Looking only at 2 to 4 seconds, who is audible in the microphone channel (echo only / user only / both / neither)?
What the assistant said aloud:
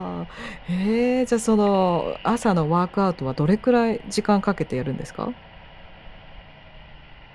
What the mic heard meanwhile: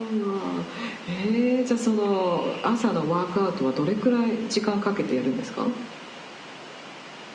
echo only